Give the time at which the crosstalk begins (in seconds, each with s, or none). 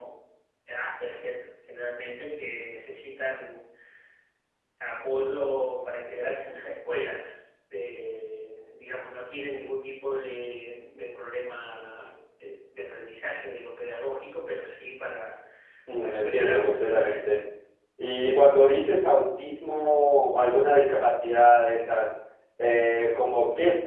16.0 s